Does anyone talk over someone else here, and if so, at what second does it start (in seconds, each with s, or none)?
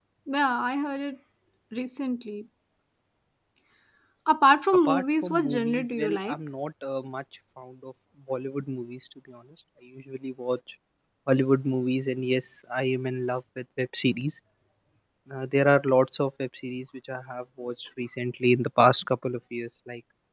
4.8 s